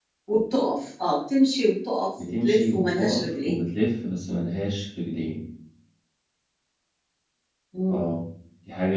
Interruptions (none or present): present